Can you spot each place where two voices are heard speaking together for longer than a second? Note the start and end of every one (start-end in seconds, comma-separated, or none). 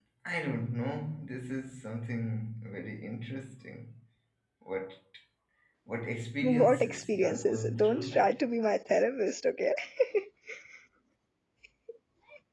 6.4-8.3